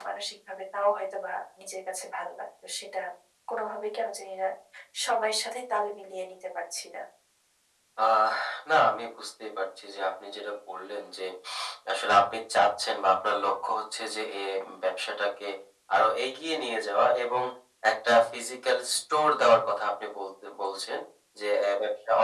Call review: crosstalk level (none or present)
none